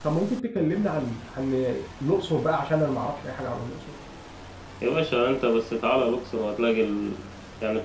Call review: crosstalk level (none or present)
none